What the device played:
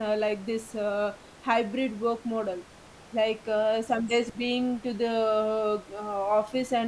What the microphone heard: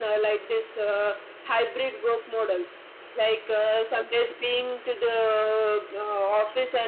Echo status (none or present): present